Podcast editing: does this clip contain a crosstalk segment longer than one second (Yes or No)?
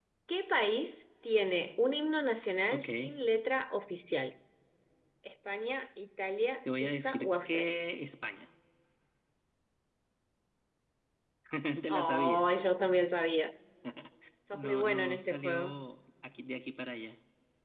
Yes